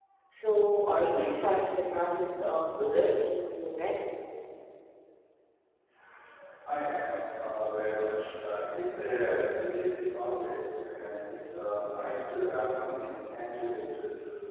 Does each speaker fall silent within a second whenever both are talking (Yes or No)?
Yes